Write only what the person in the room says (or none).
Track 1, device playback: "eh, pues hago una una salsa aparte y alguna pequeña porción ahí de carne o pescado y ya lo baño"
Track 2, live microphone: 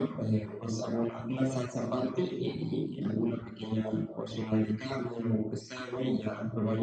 okey.